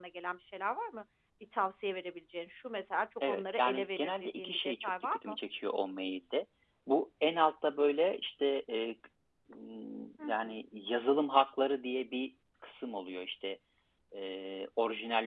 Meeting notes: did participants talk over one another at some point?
Yes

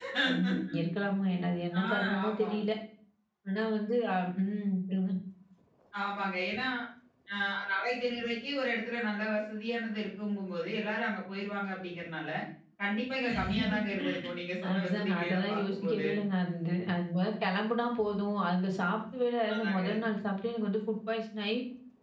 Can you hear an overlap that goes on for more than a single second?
Yes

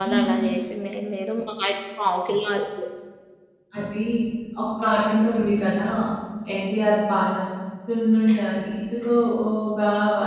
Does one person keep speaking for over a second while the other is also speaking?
No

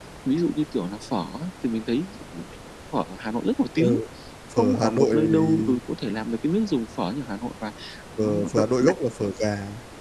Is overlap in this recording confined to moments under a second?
No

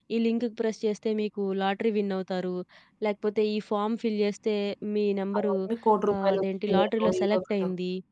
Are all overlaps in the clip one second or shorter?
No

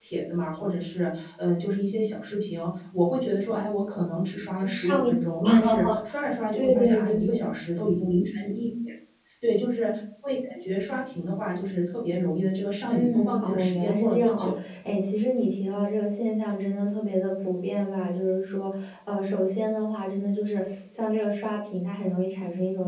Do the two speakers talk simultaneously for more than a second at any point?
Yes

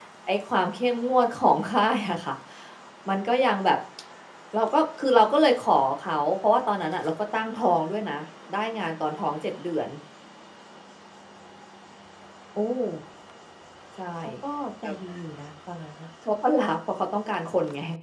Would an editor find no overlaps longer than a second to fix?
Yes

